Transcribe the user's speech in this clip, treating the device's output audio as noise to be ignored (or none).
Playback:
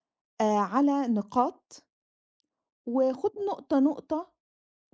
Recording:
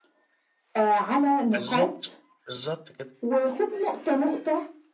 بالضبط، بالضبط كده.